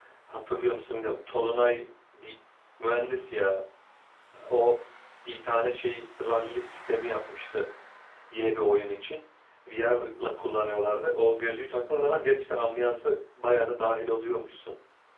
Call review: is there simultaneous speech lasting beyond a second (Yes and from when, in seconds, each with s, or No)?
No